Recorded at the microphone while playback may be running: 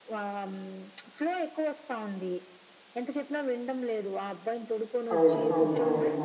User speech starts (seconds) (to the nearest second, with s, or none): 5 s